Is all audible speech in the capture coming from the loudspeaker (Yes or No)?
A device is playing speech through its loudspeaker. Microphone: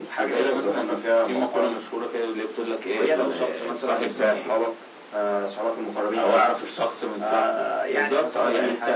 Yes